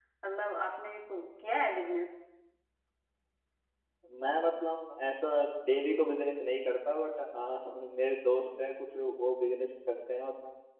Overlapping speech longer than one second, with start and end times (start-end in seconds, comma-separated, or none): none